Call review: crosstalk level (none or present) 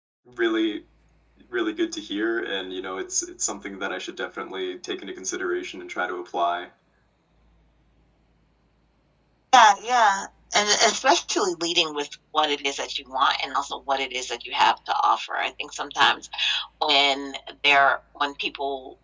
none